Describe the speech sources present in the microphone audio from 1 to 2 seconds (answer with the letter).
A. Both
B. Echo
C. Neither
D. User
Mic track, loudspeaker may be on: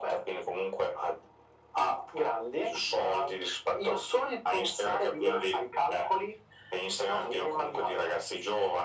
B